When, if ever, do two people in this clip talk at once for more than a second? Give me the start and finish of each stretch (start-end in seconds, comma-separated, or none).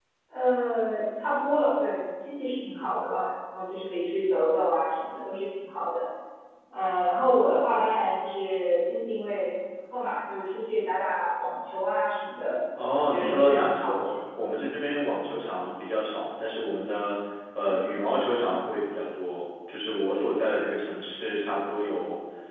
13.0-14.4